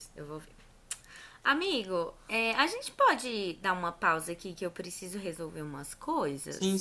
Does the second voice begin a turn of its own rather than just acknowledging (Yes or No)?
Yes